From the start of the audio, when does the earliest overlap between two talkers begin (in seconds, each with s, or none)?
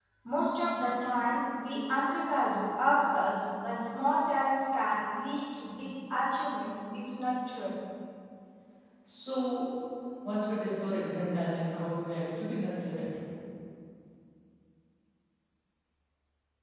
none